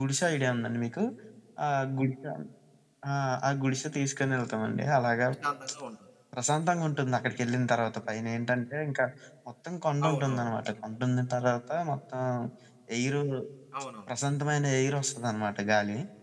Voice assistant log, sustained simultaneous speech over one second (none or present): none